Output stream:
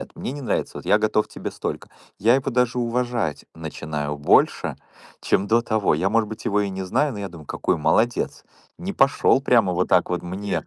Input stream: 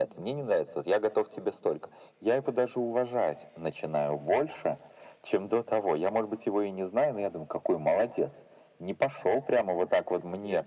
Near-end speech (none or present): none